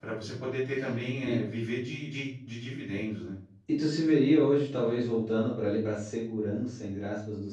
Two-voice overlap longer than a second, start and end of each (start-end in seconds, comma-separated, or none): none